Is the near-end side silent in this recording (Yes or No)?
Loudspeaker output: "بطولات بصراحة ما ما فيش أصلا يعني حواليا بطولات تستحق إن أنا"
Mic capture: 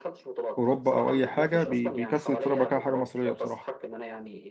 No